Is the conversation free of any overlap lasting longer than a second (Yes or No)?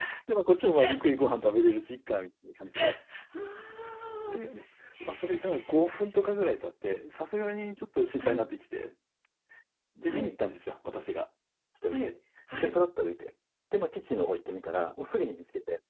Yes